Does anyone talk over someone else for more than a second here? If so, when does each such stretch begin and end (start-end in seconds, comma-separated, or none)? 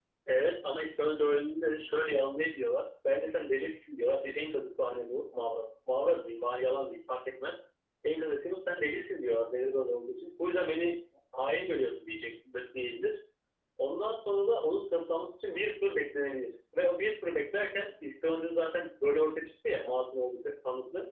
none